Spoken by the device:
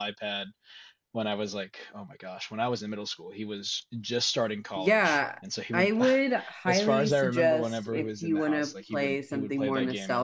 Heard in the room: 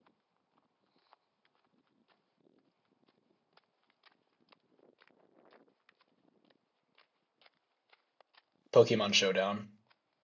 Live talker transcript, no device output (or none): Pokemon Showdown.